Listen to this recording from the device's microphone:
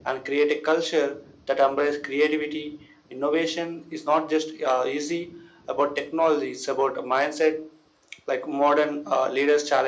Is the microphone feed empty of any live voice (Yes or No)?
Yes